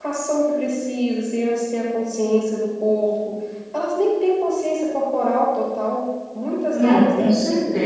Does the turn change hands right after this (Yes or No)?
Yes